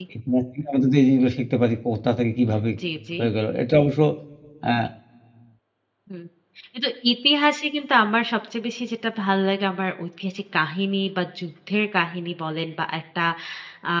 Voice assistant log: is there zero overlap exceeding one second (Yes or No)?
Yes